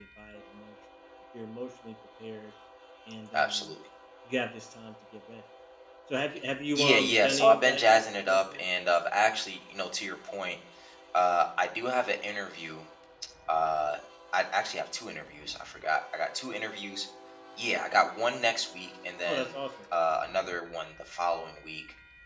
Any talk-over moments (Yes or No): Yes